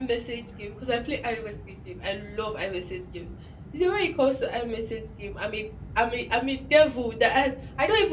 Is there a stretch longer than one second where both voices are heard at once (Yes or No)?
No